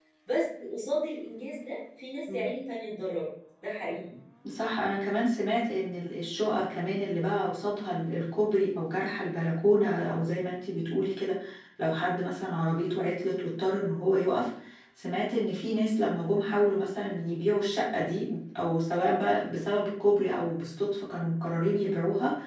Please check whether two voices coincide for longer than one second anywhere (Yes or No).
No